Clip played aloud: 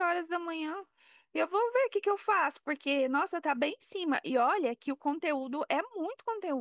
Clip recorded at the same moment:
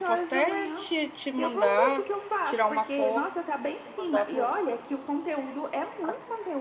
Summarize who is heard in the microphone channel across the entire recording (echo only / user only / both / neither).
both